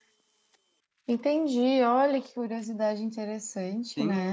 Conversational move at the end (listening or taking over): taking over